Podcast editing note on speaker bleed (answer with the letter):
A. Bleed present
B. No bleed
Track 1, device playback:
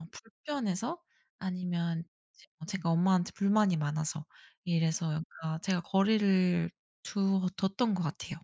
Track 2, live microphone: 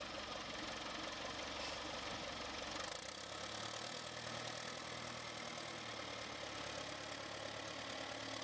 B